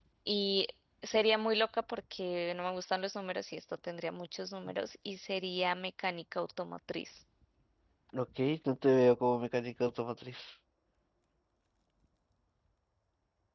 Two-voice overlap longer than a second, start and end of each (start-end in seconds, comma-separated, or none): none